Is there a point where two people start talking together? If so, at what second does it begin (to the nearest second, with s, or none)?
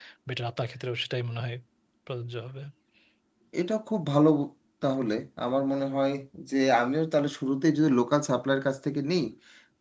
none